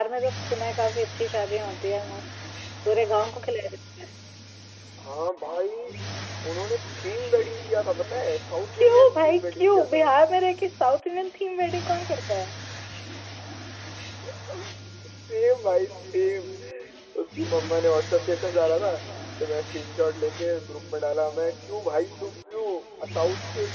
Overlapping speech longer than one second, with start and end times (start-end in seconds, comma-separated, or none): 8.7-10.0